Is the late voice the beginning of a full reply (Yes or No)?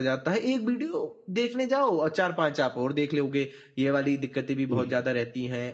No